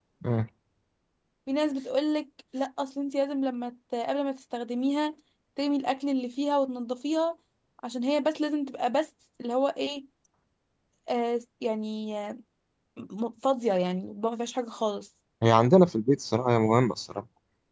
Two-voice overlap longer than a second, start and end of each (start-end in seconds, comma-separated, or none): none